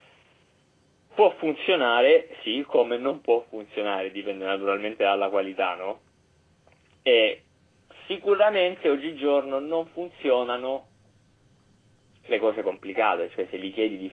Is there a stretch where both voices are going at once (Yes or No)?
No